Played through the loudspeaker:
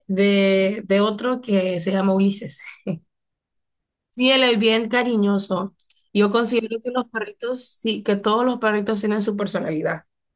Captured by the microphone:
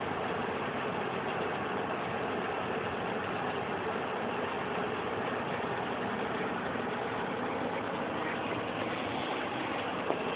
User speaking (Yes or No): No